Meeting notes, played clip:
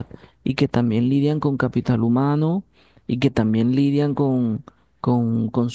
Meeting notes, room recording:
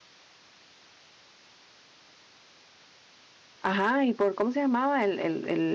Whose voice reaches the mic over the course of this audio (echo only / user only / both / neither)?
user only